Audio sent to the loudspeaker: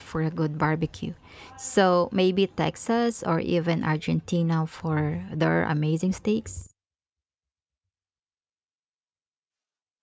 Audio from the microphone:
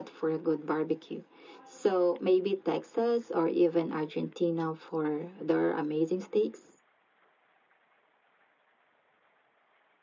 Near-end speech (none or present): none